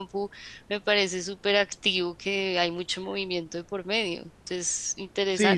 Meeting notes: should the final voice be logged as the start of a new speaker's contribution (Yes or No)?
Yes